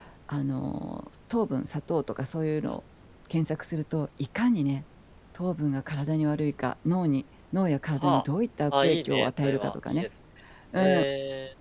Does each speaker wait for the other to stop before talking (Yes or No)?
No